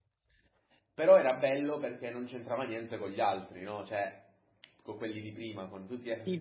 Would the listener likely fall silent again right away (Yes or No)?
No